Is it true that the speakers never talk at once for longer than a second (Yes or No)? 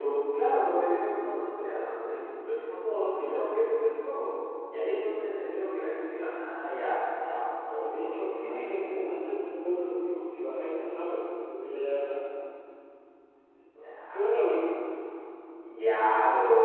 No